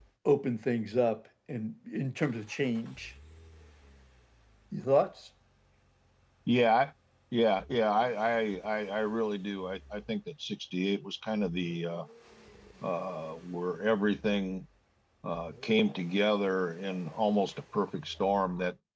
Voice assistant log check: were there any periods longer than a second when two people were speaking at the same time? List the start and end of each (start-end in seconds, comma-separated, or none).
none